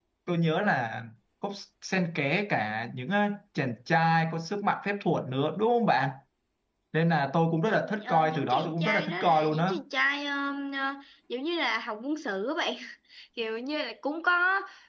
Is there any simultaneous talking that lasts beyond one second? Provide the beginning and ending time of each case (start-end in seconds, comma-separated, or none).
7.6-9.7